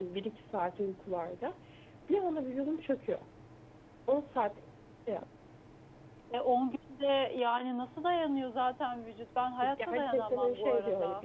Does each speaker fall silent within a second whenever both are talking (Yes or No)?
No